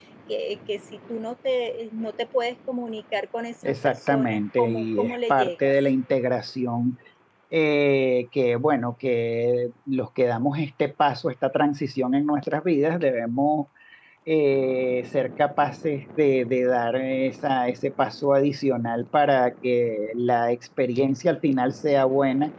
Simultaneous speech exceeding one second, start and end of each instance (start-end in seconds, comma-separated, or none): 3.8-5.7